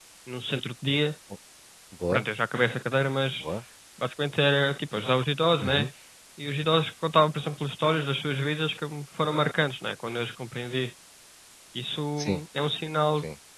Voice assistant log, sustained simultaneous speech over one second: none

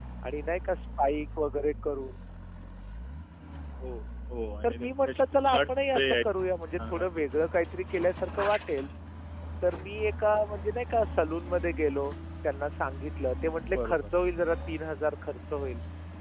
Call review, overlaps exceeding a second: present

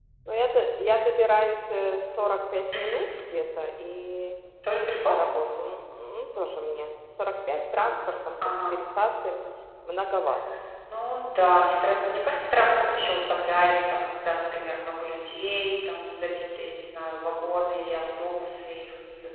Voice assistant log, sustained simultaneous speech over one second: none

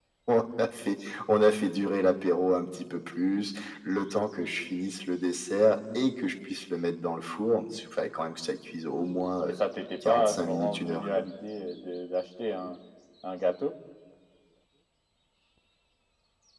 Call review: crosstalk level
present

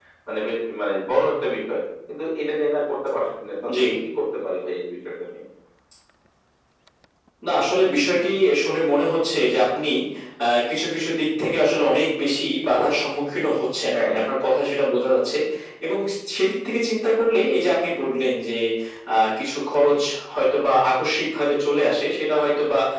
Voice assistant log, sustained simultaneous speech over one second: none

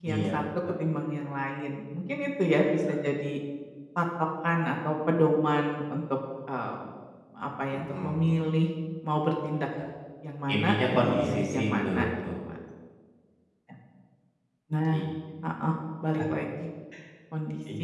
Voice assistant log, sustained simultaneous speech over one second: present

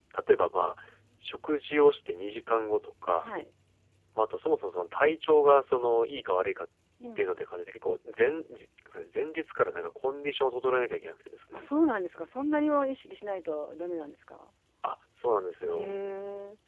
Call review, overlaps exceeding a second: none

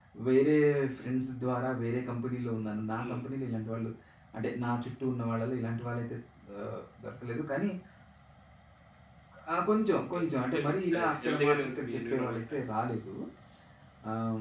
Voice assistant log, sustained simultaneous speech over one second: present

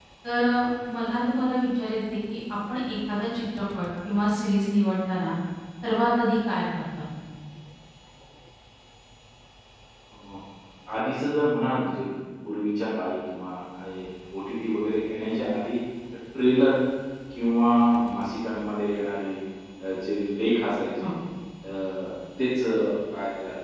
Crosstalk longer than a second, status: none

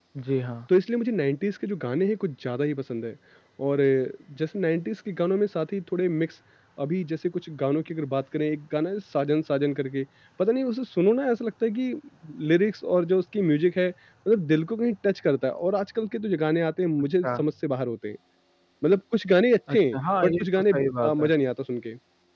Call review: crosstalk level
present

